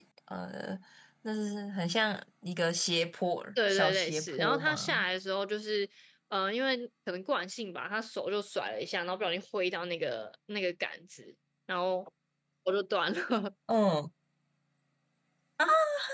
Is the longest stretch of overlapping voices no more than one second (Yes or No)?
No